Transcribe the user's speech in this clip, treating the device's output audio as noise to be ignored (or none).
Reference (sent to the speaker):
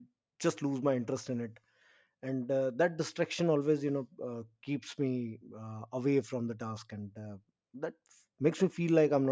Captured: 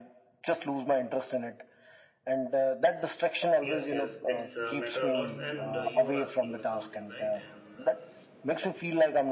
Yes, yes. It's uh, matter a lot. And uh, you were asking me something, right? And uh, s-